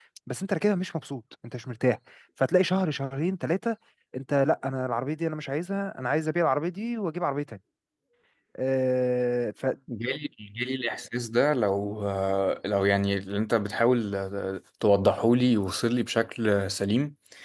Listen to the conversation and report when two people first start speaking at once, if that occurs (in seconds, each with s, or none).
none